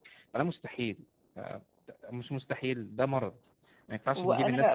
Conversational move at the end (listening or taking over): taking over